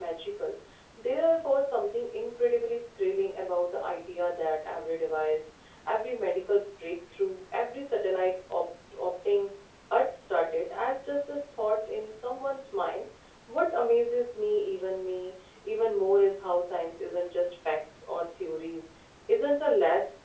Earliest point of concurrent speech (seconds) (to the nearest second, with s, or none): none